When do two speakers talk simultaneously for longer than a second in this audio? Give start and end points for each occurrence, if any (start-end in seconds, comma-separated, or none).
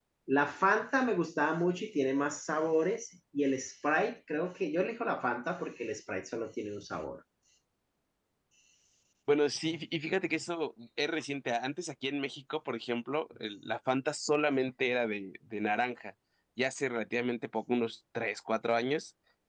none